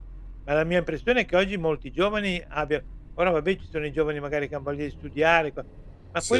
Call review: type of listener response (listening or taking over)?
listening